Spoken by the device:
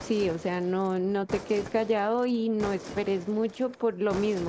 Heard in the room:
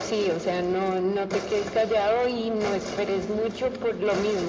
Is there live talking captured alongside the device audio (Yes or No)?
No